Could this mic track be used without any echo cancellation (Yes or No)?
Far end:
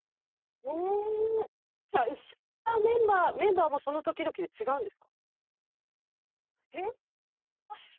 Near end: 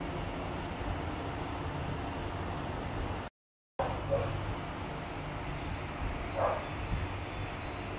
Yes